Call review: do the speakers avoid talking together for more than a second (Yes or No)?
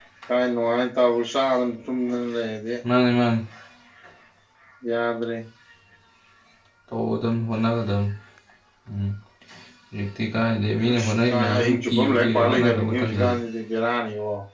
No